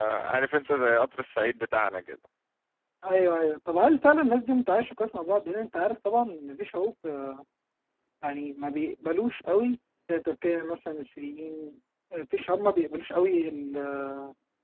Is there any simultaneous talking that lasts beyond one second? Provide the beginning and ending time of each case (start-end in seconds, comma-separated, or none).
none